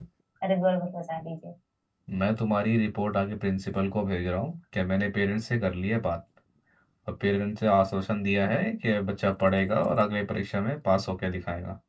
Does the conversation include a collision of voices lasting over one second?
No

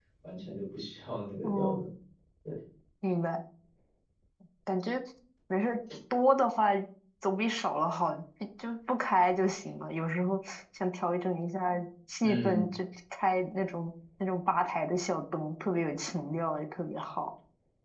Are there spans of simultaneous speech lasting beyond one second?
No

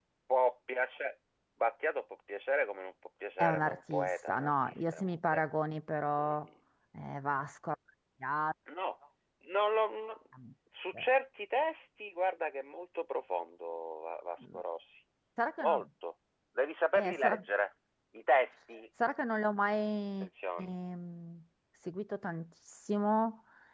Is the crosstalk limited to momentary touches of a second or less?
No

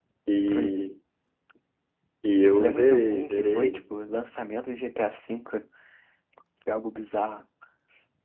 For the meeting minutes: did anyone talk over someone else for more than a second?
Yes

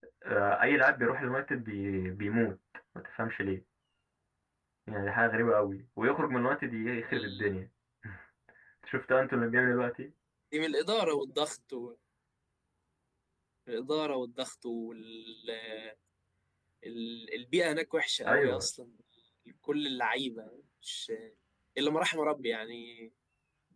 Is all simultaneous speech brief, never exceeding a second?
Yes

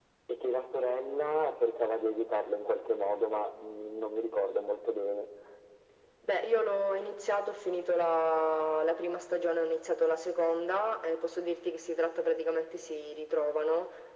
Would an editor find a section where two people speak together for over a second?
No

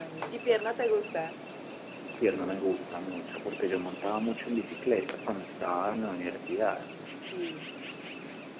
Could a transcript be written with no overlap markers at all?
Yes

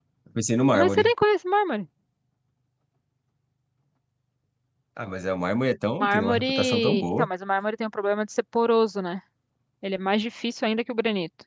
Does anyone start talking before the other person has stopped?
Yes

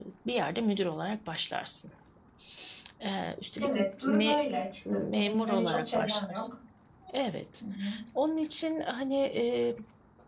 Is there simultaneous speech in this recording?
Yes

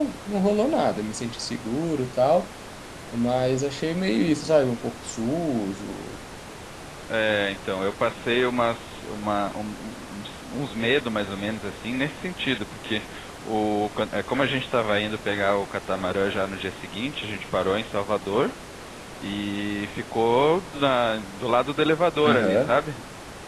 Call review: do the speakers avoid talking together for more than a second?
Yes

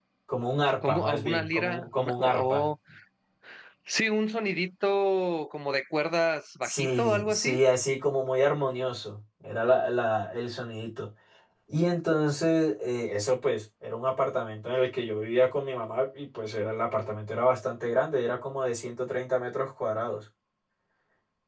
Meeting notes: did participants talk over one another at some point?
Yes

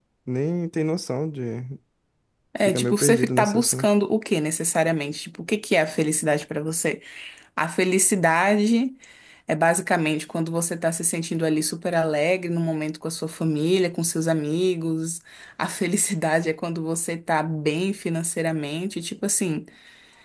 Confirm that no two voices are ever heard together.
No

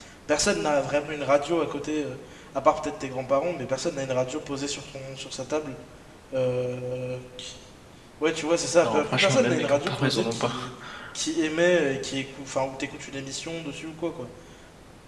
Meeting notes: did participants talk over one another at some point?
Yes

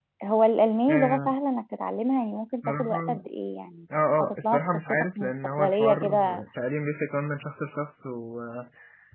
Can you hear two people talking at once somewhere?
Yes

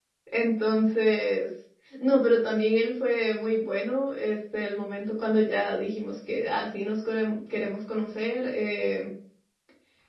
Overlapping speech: No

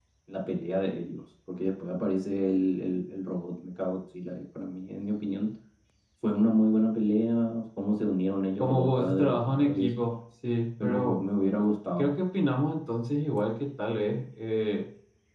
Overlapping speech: Yes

